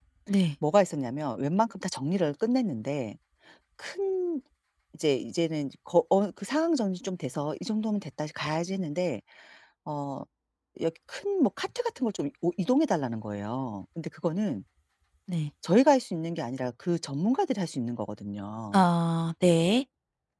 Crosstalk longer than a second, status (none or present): none